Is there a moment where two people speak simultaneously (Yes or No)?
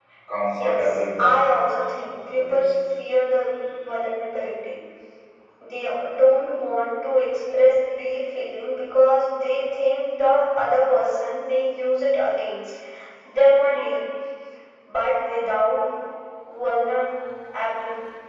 Yes